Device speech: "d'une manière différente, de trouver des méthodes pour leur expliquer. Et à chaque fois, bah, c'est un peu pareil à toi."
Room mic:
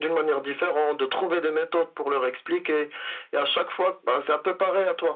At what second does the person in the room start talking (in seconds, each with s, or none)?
none